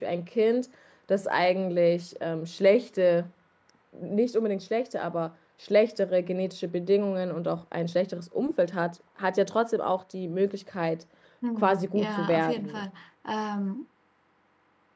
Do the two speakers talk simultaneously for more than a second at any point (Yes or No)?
Yes